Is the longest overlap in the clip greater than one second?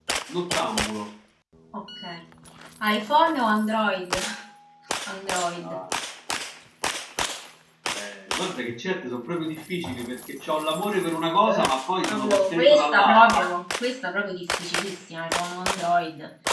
Yes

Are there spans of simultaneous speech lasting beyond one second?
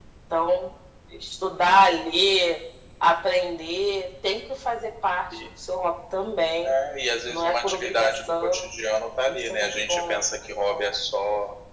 Yes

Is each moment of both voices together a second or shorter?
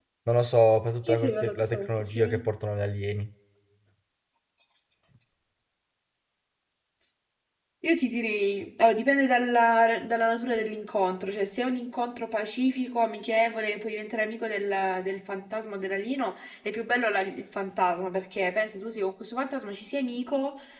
No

